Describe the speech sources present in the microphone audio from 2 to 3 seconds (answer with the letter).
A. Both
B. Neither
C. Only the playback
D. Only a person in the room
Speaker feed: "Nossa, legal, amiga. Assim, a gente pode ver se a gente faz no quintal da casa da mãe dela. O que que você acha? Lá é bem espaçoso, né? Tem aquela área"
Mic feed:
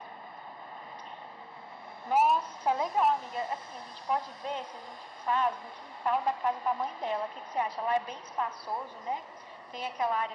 C